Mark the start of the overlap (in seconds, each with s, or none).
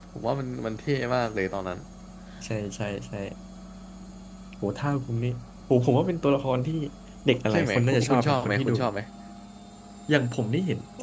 7.5 s